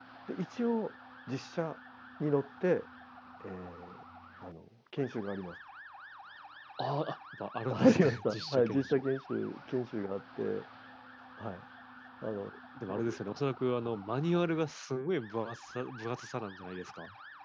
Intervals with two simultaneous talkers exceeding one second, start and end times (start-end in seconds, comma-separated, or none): 7.7-9.1